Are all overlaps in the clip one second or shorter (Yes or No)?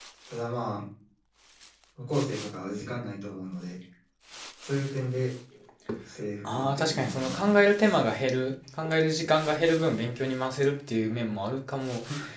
No